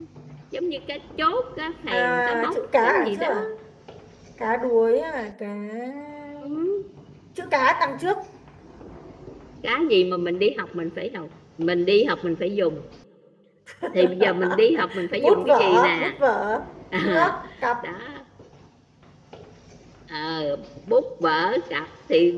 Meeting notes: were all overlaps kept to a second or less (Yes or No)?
No